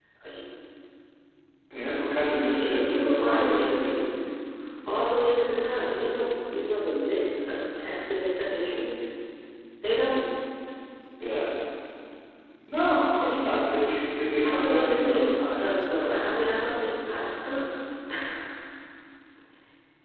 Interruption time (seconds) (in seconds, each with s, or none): 2.5 s